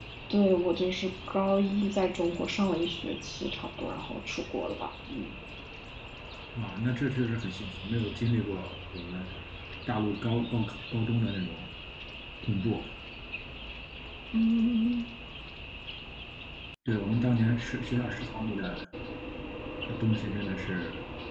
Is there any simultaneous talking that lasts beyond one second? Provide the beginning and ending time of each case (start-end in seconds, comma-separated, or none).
none